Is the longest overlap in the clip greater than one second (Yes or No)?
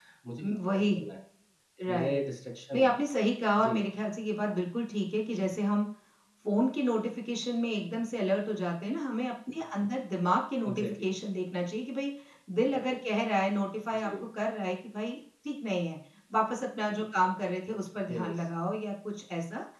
No